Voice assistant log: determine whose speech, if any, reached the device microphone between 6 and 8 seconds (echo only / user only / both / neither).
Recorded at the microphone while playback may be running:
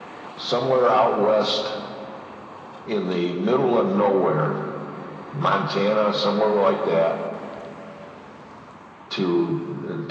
echo only